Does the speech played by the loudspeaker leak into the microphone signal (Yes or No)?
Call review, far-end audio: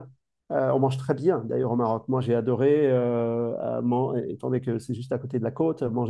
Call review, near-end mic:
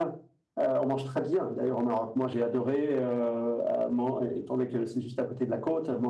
Yes